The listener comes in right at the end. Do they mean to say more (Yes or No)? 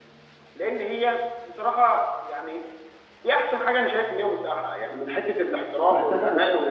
Yes